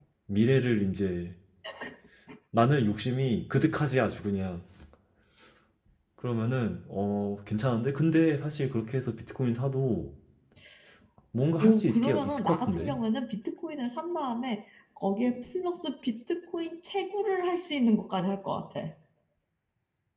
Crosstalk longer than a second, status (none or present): present